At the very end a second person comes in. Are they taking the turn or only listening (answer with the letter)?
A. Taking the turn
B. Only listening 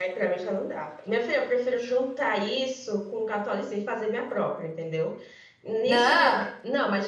B